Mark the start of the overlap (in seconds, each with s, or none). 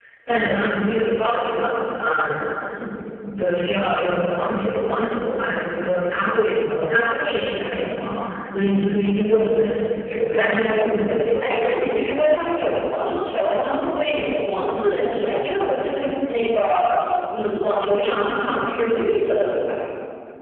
10.3 s